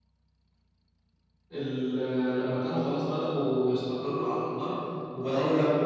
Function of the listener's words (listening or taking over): taking over